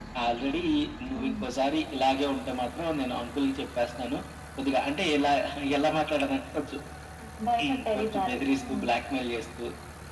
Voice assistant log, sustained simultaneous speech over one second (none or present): present